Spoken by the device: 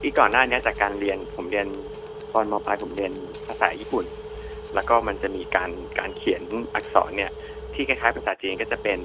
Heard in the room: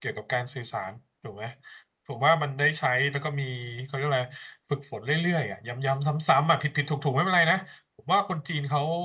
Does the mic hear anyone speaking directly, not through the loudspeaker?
Yes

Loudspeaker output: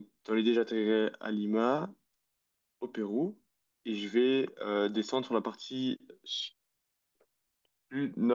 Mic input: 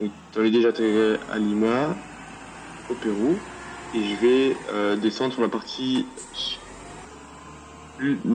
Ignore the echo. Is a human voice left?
No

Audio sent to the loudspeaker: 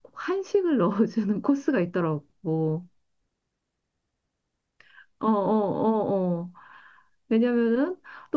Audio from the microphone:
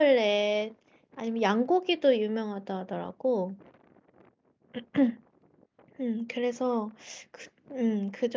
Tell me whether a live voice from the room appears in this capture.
Yes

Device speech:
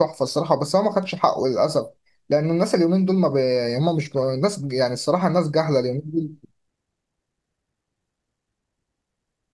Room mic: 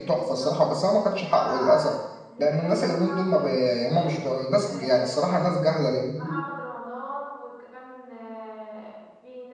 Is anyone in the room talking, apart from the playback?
Yes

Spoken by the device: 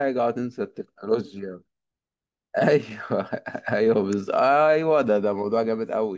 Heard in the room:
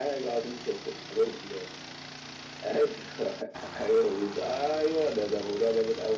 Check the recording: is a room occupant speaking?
No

